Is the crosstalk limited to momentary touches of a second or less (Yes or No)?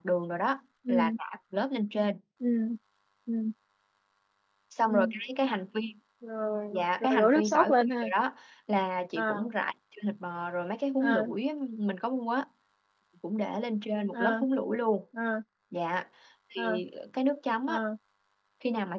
No